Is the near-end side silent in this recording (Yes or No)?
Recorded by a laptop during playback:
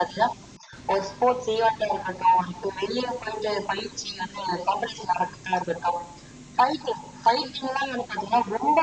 Yes